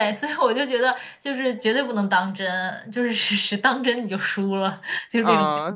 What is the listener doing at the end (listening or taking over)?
taking over